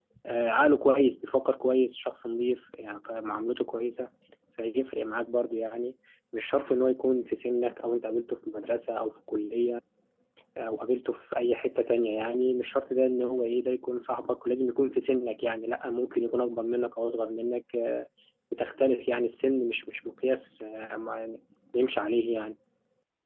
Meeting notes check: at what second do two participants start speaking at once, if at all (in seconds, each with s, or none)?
none